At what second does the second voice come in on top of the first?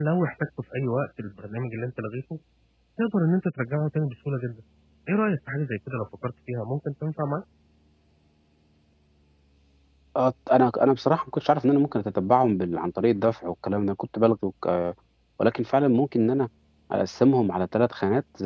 none

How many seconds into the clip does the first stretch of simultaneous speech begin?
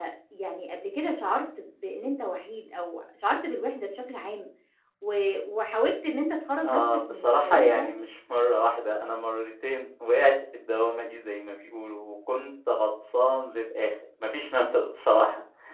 6.6 s

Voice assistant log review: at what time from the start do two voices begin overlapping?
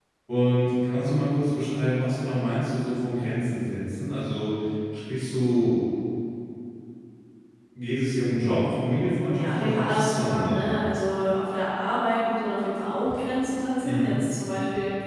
9.4 s

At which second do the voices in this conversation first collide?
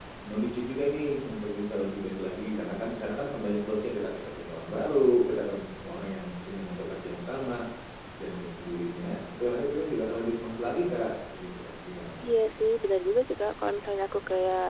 none

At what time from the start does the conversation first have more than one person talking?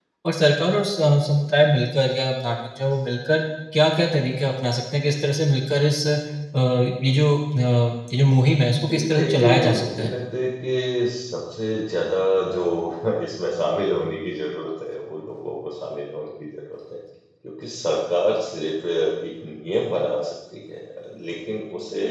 8.9 s

